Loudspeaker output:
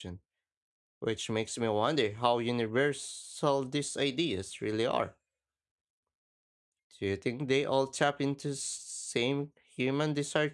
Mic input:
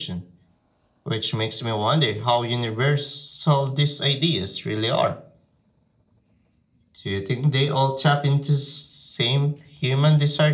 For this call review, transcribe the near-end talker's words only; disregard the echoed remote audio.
none

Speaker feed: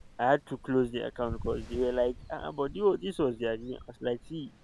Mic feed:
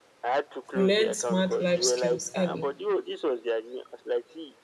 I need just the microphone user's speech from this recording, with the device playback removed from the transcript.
You learn smart life skills early.

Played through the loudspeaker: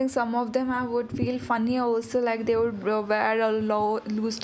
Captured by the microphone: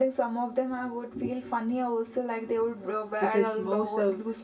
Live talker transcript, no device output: because most of

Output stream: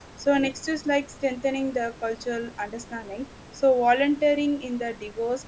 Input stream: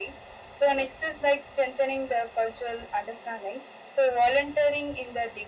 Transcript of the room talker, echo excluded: none

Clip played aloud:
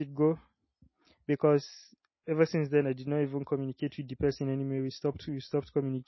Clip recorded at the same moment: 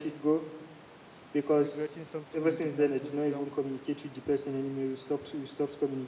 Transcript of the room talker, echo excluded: regretting something you did not do example

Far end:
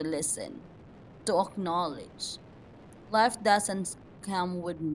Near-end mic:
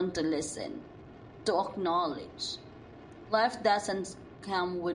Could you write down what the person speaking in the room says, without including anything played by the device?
none

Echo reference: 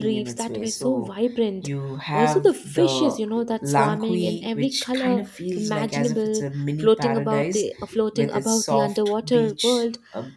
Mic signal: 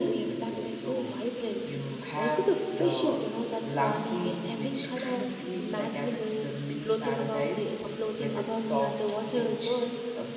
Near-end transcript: none

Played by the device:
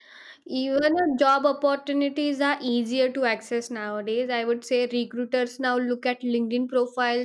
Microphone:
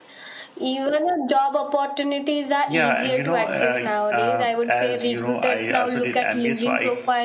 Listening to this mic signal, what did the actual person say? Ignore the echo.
Yeah, and you know, uh, uh, as you know, I also did MBA, so I

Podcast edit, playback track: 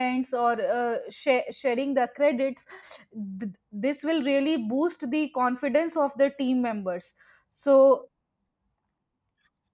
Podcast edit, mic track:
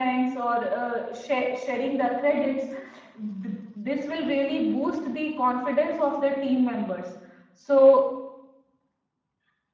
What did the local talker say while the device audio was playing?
none

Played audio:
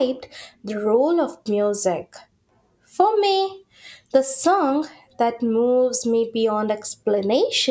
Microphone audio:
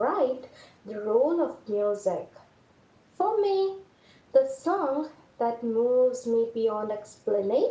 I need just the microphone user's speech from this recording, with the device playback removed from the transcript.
none

